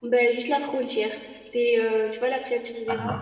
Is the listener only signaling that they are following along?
Yes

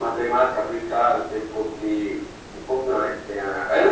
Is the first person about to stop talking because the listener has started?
Yes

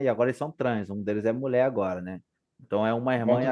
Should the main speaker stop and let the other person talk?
No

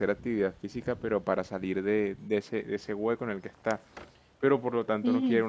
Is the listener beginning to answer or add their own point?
No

